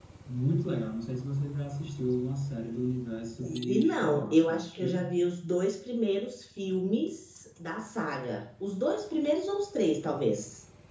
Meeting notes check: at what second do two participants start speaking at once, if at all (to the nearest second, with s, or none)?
3 s